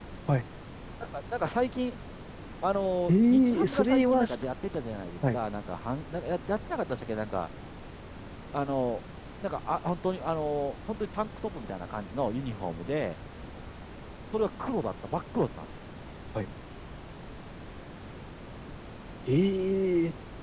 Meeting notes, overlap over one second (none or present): present